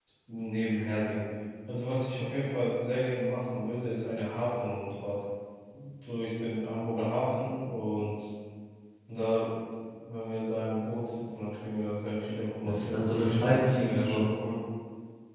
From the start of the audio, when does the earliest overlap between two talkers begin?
12.6 s

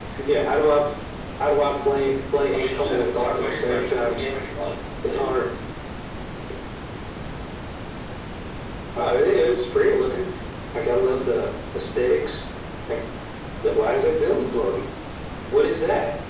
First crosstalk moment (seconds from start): 2.5 s

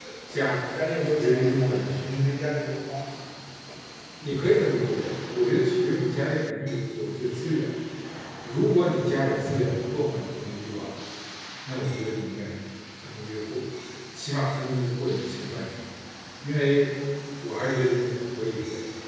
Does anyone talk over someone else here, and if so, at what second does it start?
1.0 s

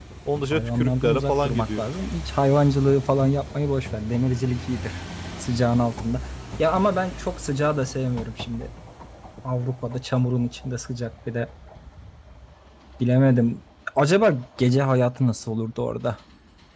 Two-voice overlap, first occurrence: 0.5 s

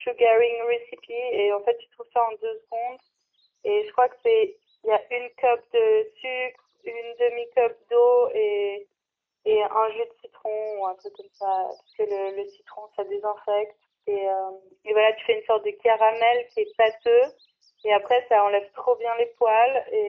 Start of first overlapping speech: none

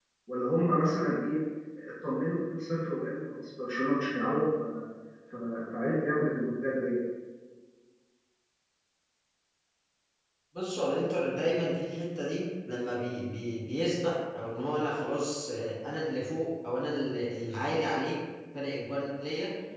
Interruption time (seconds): none

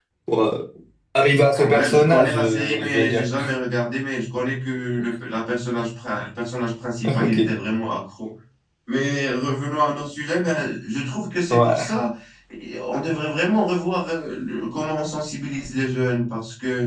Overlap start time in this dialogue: 1.5 s

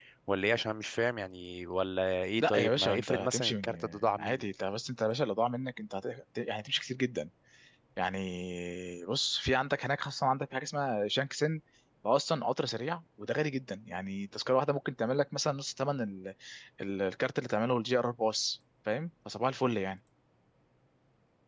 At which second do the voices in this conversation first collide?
2.4 s

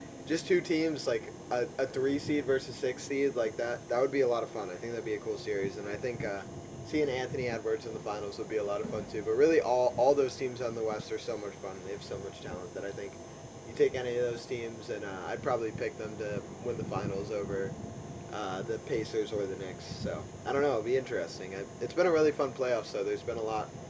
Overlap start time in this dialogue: none

